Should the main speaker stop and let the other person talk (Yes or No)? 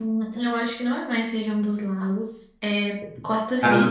No